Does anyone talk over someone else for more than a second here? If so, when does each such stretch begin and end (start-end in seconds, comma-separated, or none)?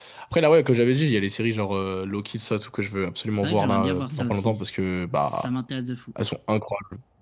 3.3-4.6